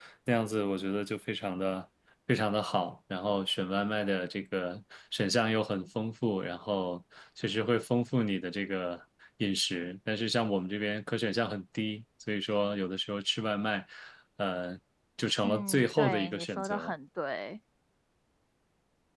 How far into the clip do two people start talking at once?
15.4 s

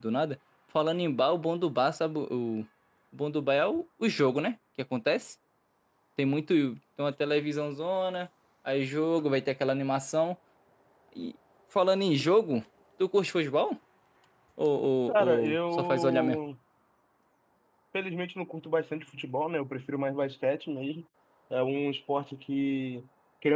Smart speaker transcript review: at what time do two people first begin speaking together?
15.2 s

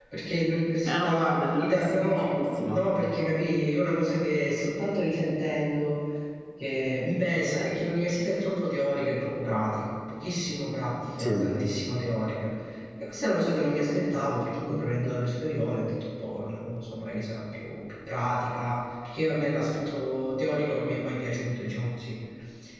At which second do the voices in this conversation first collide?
0.8 s

